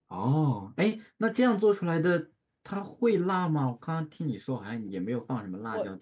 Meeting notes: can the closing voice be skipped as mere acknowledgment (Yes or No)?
No